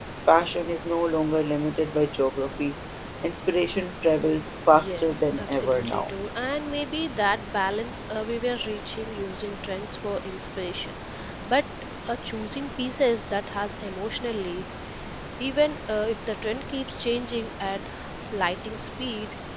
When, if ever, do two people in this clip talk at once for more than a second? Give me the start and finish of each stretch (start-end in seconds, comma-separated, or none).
4.7-6.1